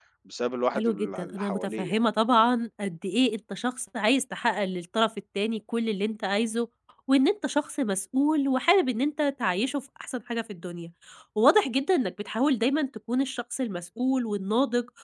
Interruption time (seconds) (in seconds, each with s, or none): 0.8 s